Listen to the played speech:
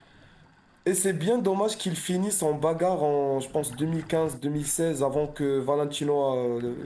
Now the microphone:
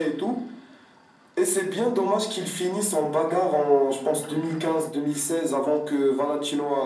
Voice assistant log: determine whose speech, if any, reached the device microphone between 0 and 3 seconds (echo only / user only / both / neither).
echo only